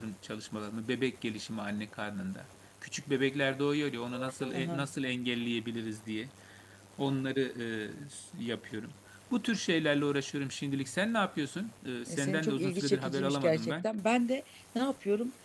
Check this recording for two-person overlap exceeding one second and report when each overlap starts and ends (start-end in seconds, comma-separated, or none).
12.1-13.8